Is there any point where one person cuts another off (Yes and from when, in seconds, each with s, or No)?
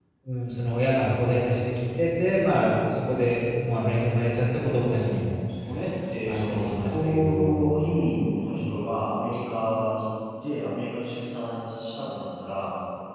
Yes, from 6.3 s